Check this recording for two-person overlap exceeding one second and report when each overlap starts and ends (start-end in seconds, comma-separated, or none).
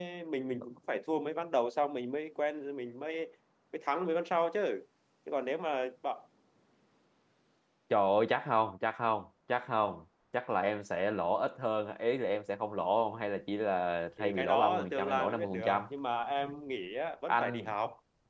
14.2-15.8